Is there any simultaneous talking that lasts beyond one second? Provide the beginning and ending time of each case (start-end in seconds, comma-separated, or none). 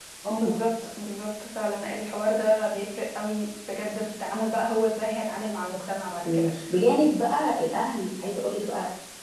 none